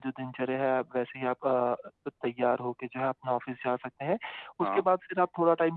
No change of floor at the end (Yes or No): Yes